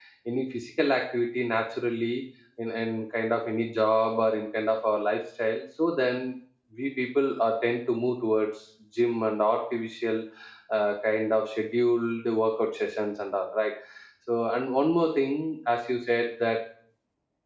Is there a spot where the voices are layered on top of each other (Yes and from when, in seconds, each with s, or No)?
No